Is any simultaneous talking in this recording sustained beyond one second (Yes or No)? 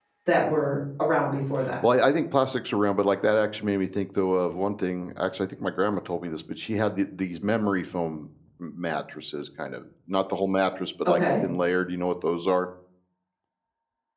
No